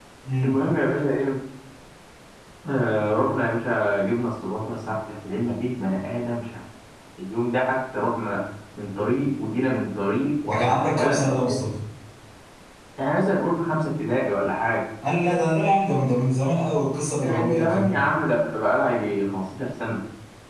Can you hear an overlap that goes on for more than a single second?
Yes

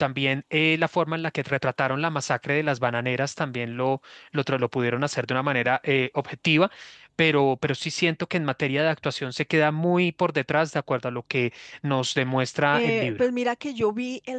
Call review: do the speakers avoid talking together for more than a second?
Yes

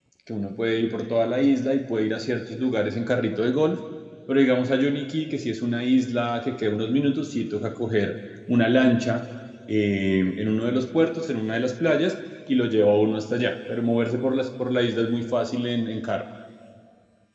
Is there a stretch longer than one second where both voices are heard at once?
No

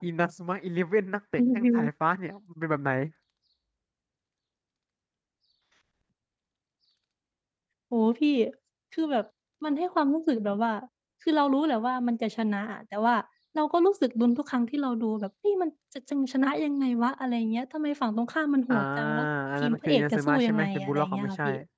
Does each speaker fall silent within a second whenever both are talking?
No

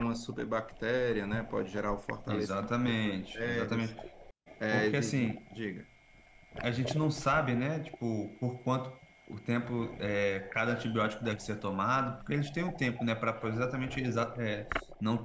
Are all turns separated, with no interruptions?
No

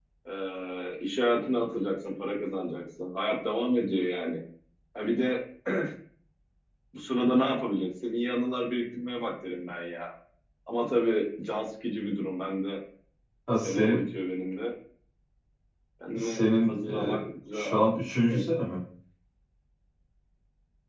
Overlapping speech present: Yes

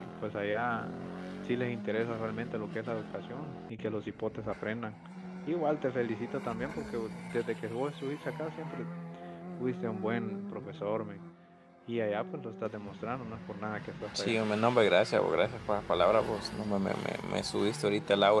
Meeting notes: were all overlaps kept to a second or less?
Yes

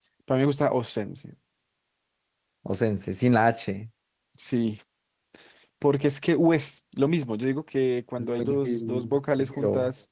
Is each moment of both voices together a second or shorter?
No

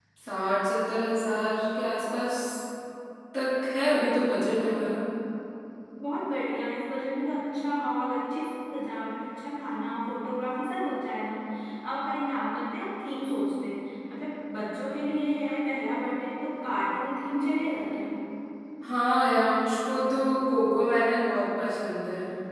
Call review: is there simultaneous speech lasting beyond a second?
No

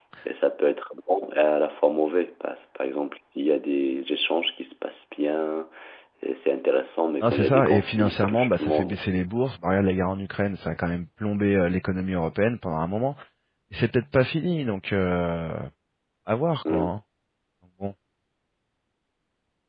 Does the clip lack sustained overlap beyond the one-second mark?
No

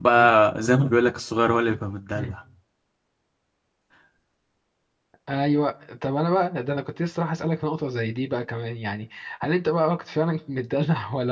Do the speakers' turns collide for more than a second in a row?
No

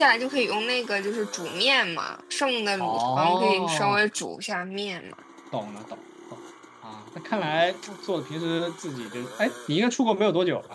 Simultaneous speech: Yes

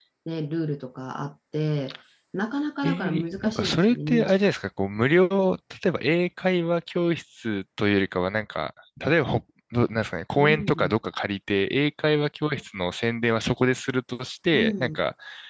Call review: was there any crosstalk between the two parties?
Yes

